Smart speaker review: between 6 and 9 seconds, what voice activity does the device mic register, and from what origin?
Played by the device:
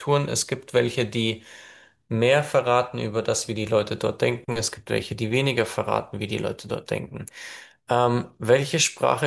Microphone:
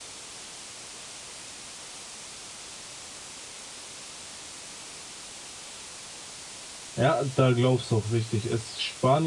user only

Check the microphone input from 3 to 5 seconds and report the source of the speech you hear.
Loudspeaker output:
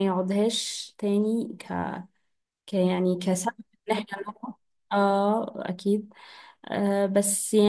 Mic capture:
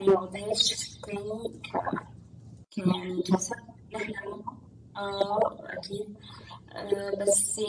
echo only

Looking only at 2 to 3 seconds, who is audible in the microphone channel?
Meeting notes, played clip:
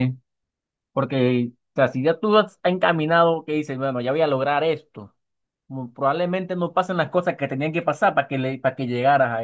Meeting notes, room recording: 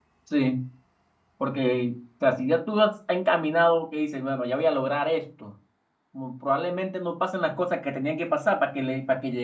echo only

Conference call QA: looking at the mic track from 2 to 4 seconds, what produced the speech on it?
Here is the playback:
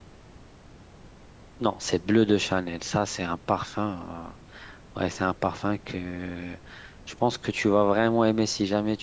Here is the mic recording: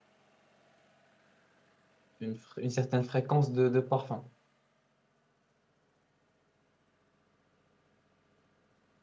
user only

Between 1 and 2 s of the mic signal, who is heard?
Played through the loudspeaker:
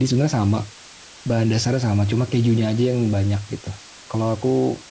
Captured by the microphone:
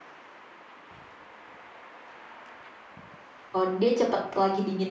neither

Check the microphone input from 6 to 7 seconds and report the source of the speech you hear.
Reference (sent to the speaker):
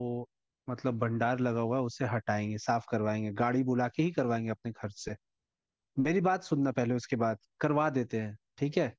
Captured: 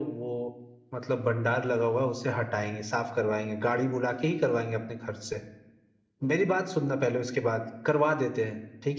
echo only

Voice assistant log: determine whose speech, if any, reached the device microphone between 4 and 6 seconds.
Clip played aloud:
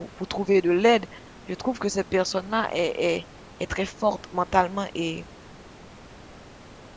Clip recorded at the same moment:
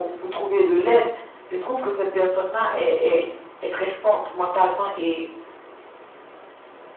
echo only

